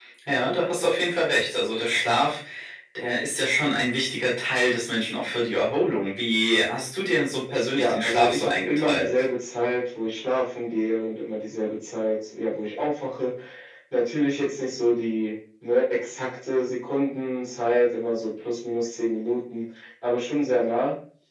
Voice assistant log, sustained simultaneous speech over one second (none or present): present